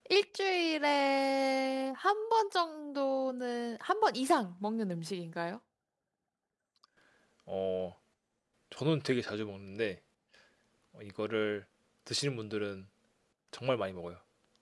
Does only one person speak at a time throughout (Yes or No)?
Yes